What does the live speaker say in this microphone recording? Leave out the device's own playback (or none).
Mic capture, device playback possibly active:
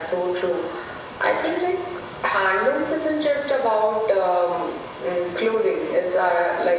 none